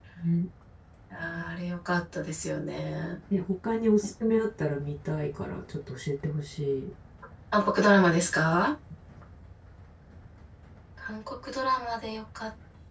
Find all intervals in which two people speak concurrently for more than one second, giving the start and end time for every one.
none

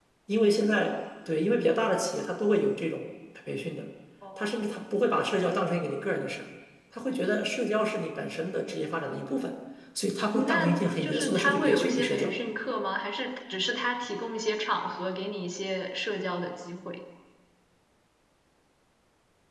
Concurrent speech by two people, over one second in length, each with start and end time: 10.3-12.3

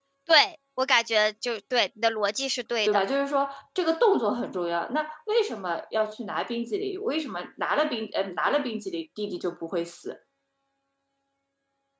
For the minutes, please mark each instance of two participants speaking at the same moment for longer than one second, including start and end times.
none

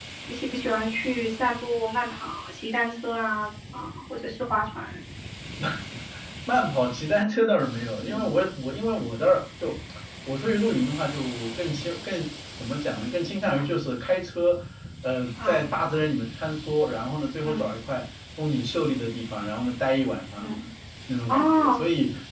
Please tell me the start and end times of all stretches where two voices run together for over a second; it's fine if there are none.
none

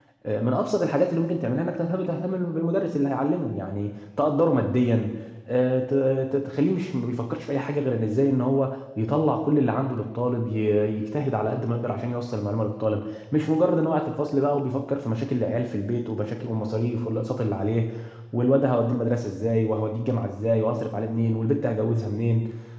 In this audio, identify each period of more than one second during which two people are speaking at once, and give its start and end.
none

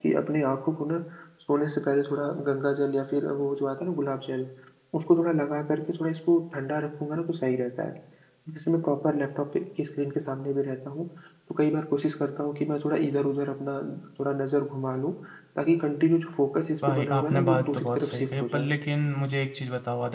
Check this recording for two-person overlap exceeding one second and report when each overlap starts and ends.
16.9-18.7

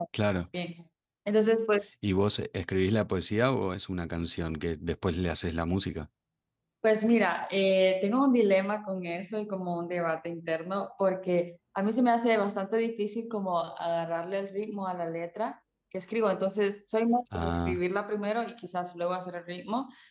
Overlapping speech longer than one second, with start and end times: none

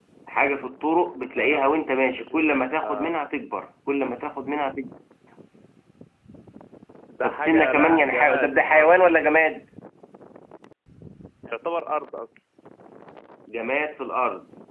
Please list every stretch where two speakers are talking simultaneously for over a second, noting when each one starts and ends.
7.2-8.9

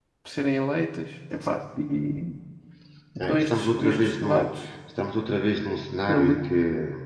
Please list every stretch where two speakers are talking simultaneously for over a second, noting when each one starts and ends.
3.2-4.5

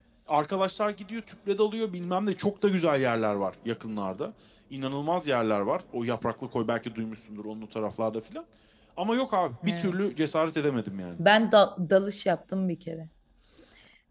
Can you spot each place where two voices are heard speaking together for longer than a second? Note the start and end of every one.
none

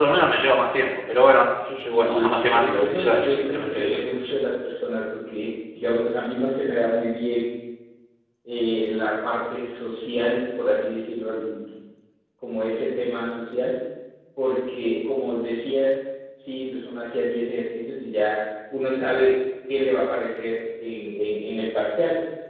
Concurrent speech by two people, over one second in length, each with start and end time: 1.9-4.0

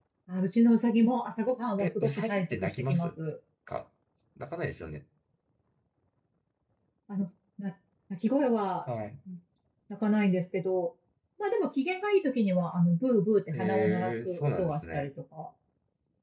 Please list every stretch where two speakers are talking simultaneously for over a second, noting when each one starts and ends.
1.8-3.1, 13.5-15.1

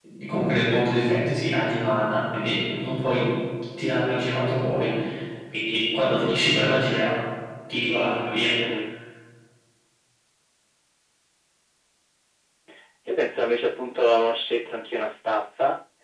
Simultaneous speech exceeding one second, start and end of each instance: none

